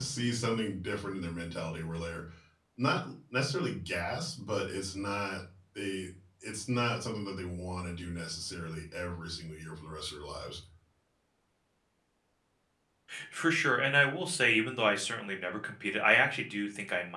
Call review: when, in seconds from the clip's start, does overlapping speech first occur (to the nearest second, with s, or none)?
none